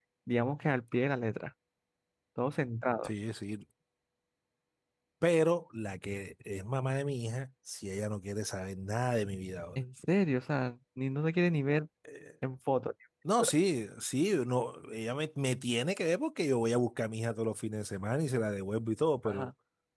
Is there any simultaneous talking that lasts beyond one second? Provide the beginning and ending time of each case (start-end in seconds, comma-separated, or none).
none